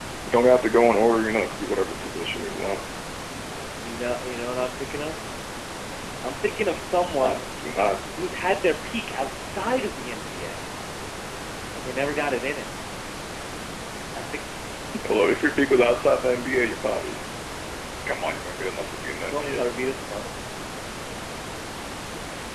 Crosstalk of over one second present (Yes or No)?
No